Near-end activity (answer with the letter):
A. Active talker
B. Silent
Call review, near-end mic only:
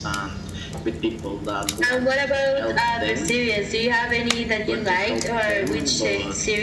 B